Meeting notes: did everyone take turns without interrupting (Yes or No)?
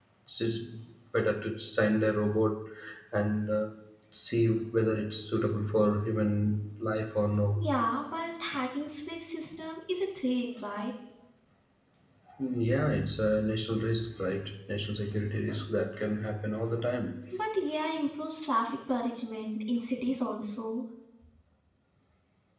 Yes